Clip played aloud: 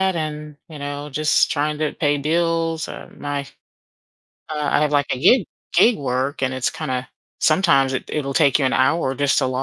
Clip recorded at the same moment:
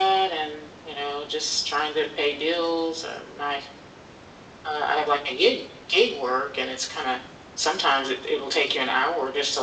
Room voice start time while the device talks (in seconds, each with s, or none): none